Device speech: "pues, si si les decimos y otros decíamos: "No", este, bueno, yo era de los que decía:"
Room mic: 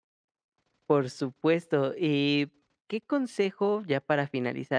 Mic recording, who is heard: user only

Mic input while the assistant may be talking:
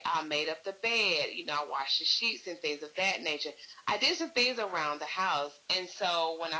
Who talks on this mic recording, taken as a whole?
echo only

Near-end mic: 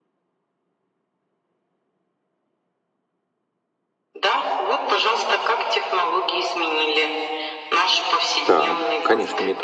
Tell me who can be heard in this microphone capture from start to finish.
both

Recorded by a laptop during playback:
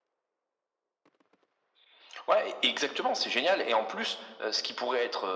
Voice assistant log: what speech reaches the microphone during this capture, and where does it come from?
echo only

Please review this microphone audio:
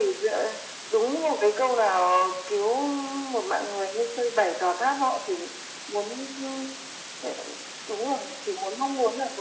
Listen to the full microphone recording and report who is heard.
echo only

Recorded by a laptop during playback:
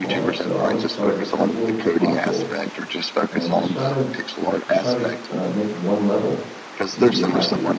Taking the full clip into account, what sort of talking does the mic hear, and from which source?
both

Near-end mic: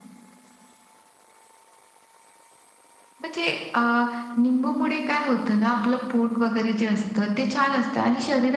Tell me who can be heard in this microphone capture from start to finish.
echo only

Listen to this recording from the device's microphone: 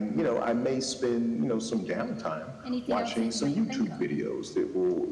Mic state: both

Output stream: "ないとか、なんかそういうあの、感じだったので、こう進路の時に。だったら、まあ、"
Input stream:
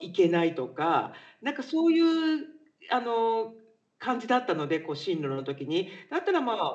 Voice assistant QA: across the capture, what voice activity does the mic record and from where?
echo only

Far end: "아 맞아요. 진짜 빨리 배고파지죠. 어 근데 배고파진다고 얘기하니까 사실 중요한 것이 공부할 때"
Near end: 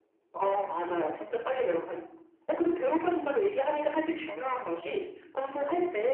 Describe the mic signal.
echo only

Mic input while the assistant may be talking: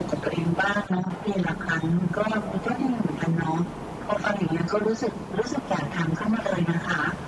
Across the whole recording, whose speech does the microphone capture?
echo only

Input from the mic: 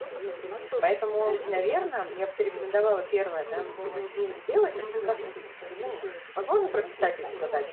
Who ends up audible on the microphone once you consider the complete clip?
both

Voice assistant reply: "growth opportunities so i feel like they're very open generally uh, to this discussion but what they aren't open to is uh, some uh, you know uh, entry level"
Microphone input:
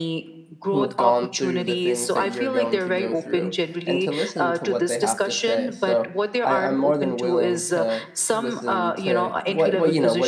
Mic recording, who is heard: both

